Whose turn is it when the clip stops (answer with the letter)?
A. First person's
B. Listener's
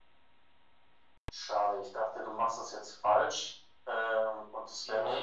A